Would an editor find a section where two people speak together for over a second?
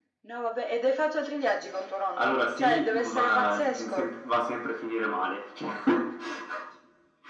Yes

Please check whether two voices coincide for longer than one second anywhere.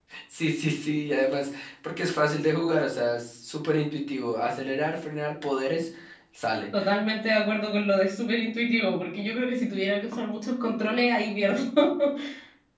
No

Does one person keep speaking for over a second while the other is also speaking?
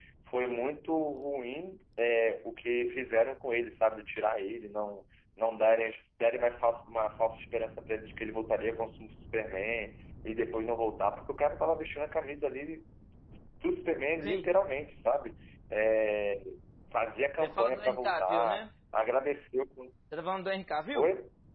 Yes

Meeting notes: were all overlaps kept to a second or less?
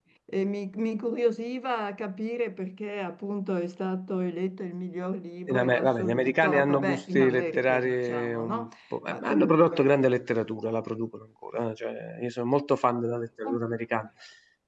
No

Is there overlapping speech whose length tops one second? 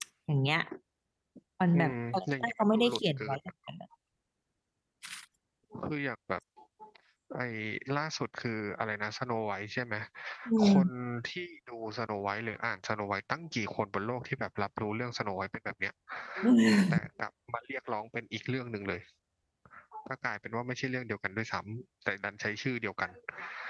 Yes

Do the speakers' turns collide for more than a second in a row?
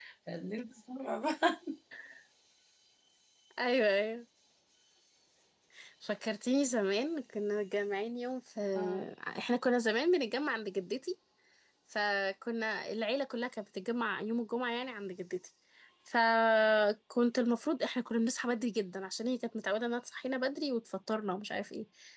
No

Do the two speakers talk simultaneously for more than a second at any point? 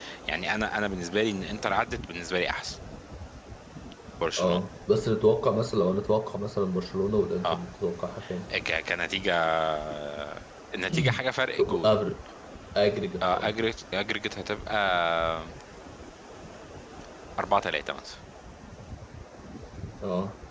No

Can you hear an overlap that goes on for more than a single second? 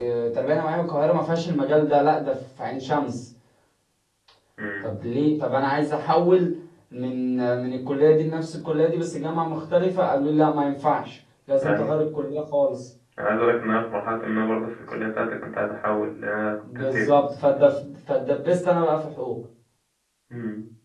No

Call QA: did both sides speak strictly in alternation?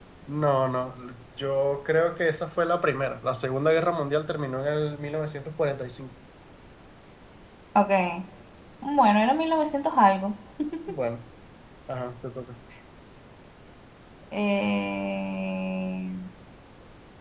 Yes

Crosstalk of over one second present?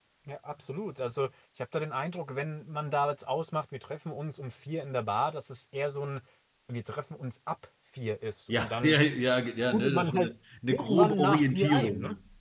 Yes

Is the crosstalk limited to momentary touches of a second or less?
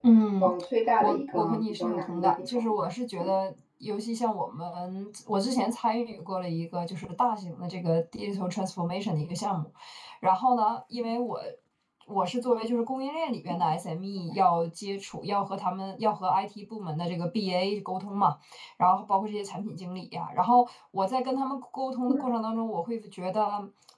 No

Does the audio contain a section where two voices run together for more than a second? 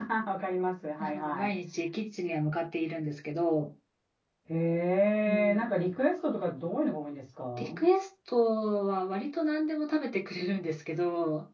No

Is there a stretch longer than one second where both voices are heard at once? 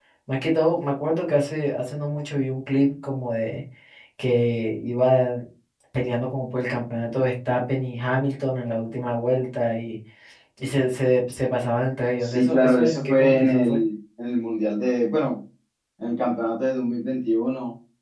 Yes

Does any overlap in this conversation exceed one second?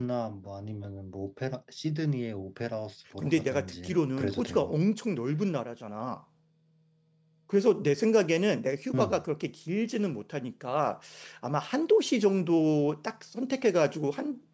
Yes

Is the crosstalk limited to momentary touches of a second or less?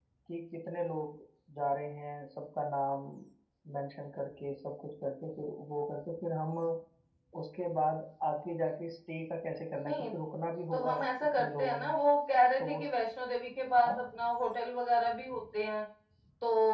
No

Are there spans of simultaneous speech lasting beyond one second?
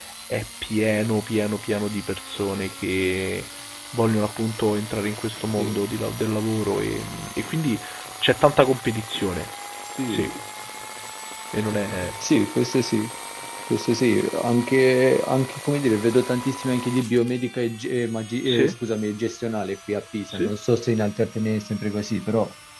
No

